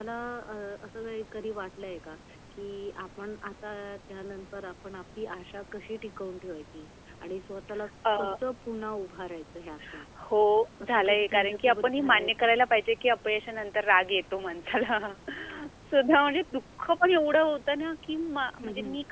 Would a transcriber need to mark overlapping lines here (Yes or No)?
Yes